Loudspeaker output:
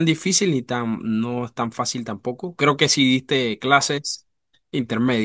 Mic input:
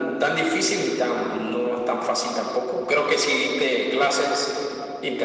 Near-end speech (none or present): none